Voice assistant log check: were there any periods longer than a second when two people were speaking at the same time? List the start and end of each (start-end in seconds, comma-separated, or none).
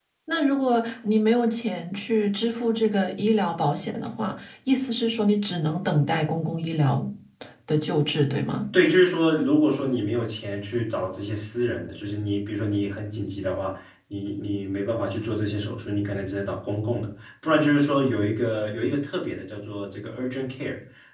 none